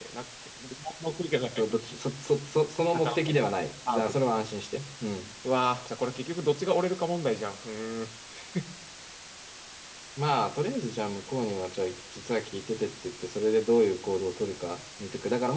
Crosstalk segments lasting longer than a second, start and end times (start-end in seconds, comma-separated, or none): none